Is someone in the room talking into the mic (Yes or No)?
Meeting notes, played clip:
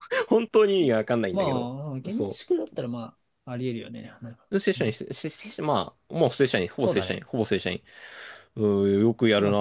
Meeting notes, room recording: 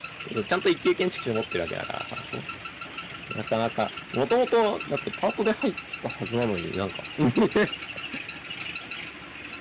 Yes